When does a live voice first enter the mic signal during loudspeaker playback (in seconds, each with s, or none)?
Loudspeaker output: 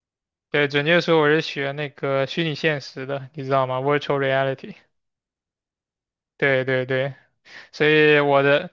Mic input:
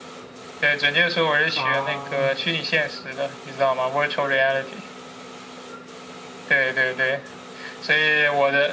1.5 s